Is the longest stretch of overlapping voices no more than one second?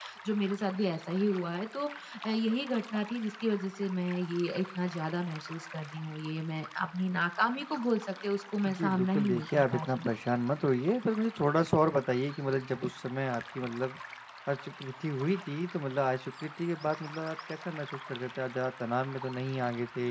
No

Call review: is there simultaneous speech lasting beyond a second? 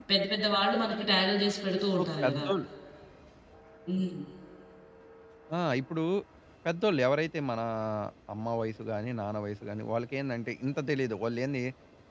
No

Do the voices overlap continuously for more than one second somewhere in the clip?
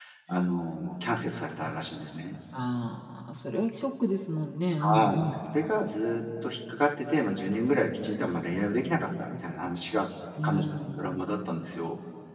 No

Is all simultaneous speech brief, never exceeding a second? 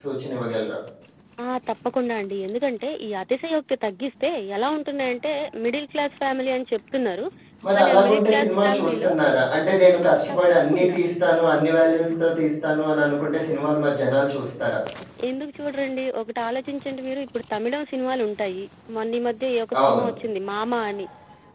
No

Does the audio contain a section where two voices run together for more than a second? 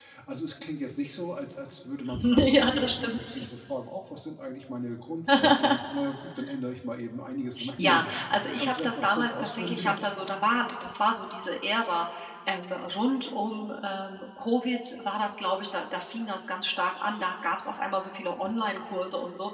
Yes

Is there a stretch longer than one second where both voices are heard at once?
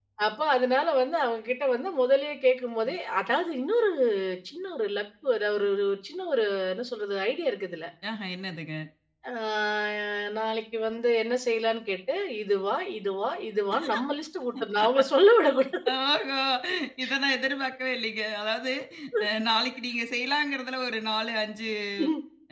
No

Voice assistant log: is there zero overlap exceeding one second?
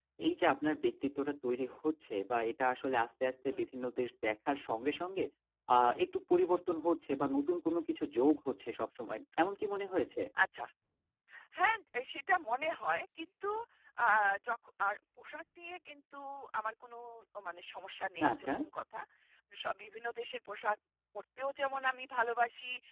Yes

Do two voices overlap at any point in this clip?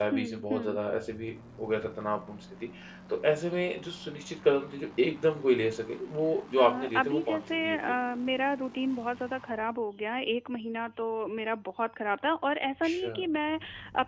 Yes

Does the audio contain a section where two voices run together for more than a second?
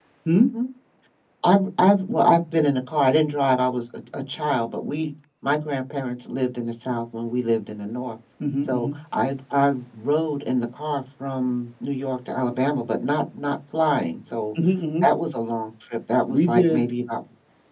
No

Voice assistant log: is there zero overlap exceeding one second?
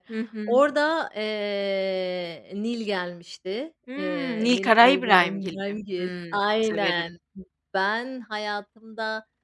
No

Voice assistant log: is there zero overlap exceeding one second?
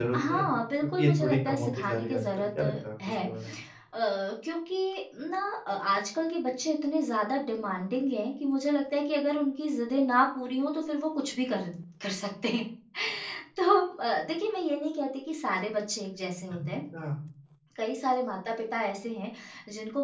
No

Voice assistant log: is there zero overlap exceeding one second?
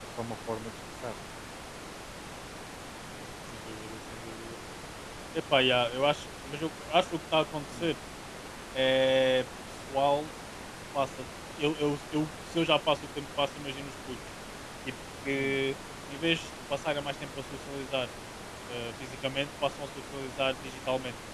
Yes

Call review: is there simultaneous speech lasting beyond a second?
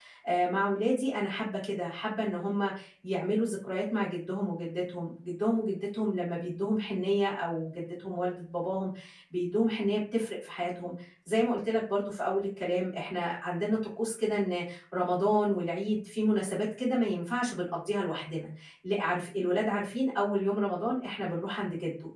No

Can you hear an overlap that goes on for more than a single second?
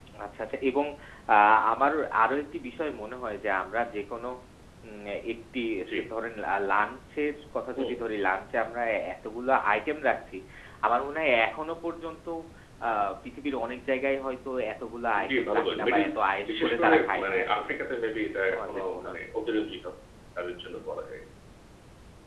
Yes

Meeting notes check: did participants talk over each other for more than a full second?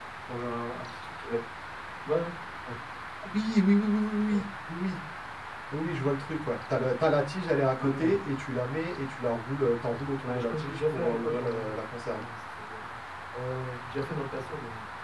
Yes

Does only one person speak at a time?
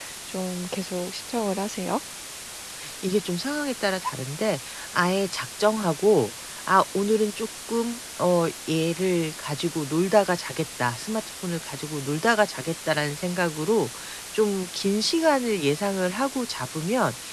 Yes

